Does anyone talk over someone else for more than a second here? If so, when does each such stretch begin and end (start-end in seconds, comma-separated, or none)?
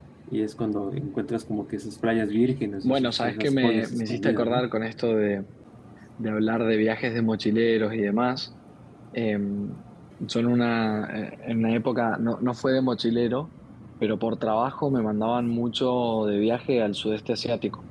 2.8-4.7